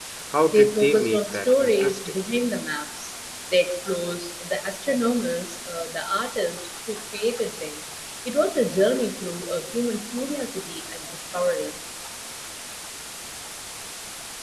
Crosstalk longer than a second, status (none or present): present